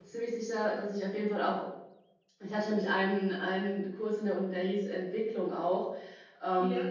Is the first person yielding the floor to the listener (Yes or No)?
No